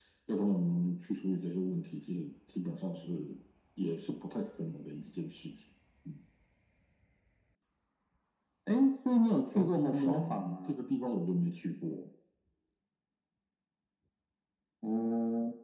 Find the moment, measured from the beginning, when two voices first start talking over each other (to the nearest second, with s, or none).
10 s